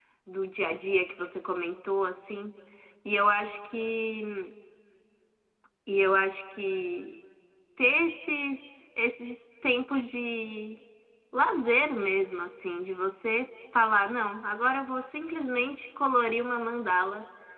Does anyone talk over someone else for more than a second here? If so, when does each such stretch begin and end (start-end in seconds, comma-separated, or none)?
none